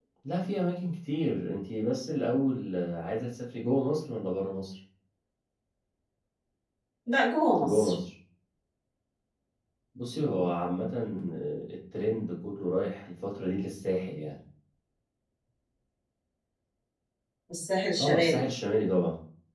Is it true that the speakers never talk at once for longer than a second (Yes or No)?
Yes